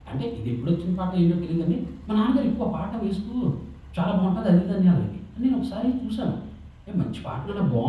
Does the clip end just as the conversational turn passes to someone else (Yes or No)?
No